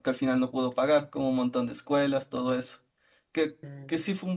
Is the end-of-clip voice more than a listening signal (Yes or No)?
No